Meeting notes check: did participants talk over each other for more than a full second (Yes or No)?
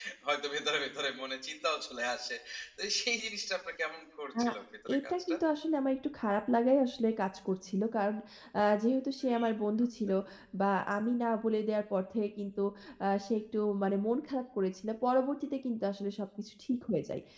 No